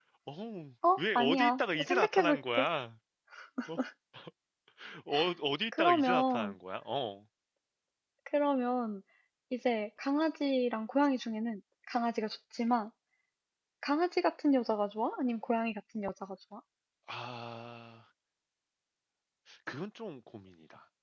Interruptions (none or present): present